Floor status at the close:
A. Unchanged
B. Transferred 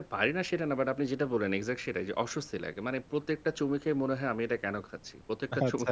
A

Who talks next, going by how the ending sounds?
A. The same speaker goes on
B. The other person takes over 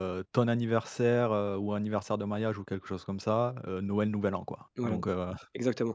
B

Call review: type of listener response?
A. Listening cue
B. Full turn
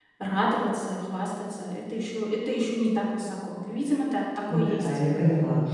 B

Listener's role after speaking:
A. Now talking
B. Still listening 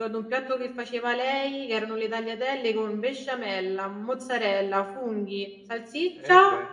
B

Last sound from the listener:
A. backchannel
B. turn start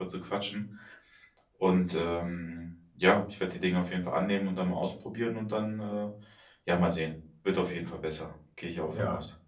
B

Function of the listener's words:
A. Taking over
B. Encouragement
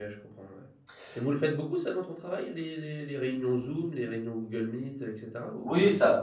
A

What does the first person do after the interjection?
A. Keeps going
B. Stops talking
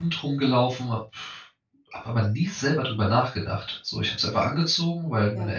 A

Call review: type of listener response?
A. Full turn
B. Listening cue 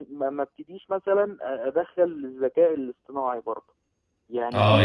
A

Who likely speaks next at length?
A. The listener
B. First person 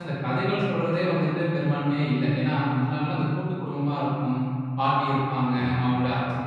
B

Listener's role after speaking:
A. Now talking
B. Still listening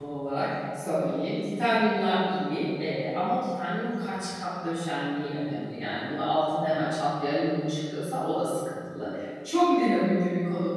B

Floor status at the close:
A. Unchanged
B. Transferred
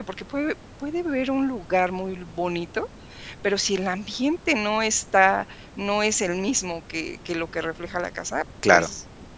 A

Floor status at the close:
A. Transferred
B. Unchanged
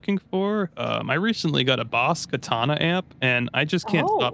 B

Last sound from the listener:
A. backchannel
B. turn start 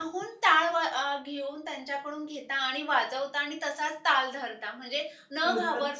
A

